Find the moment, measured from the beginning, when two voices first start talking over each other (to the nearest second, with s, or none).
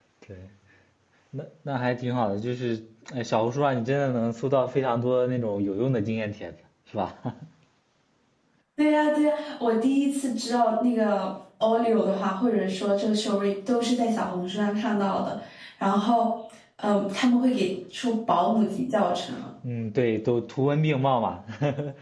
none